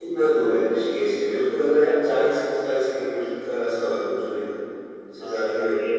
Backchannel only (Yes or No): No